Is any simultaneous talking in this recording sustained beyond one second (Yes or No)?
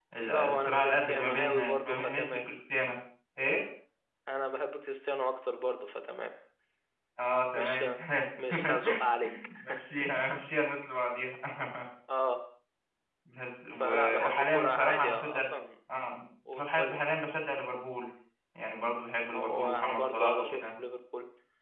Yes